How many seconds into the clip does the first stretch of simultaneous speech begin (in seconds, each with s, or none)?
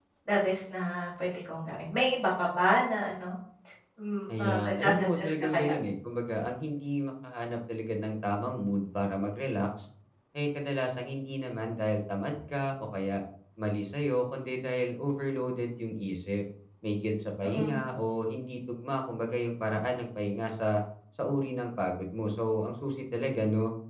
4.4 s